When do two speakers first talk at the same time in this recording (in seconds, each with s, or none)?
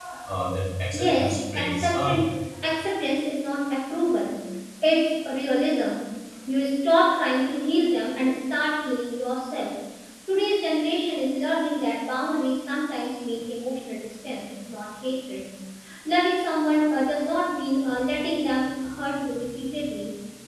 0.9 s